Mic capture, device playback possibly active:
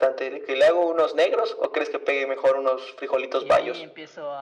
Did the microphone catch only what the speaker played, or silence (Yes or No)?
No